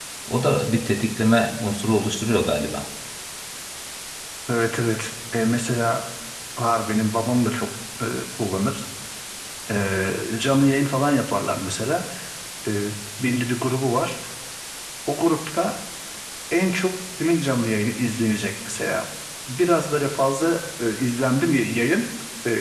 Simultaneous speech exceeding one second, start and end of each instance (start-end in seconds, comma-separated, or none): none